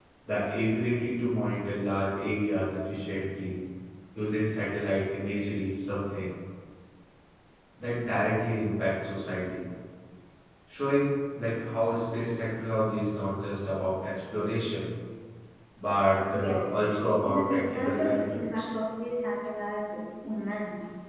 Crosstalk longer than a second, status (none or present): present